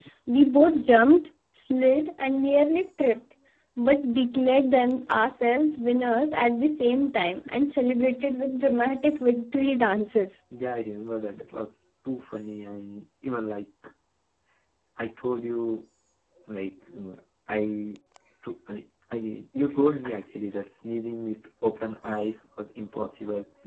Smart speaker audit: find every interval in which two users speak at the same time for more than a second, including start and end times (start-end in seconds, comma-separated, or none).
none